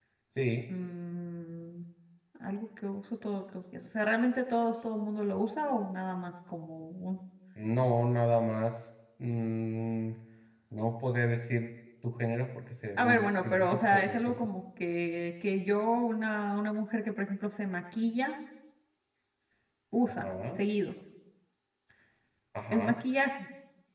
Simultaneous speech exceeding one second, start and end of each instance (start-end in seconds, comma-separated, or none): 13.0-14.5